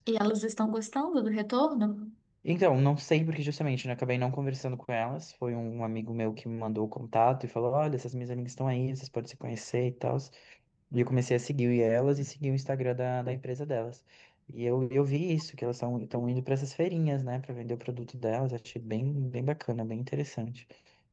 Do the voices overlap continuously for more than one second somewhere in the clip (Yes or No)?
No